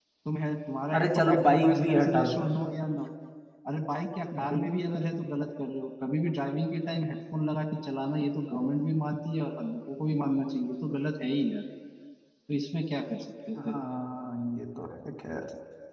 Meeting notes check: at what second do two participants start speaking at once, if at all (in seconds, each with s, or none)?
1.0 s